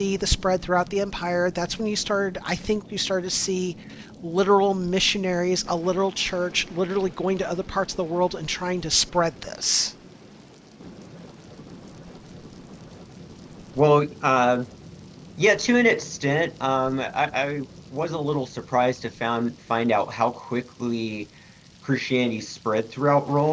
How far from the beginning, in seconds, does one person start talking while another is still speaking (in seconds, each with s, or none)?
none